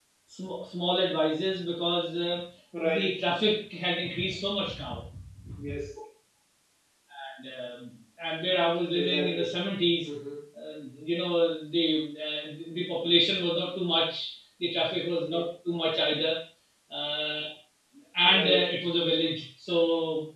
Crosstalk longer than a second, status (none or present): none